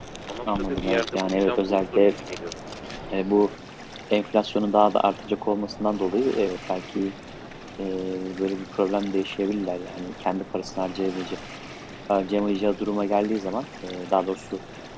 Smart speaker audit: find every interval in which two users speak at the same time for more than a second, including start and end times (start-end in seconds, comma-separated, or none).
0.6-2.1